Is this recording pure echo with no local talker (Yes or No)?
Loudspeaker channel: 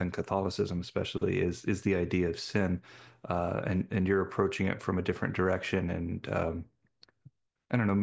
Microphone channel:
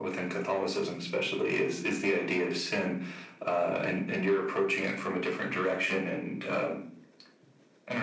Yes